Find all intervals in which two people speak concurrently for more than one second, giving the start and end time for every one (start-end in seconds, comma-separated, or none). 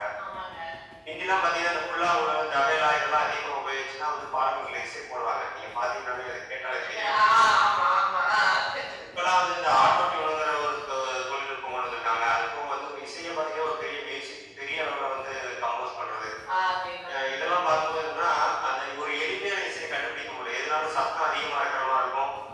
none